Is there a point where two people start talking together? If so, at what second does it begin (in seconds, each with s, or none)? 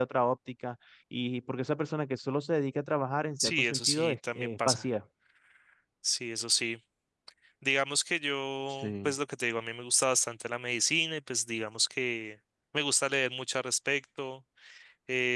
3.4 s